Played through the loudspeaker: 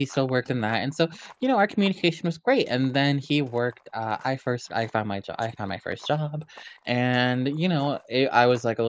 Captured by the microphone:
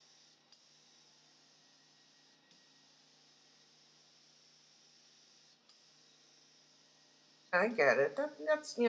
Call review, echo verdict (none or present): none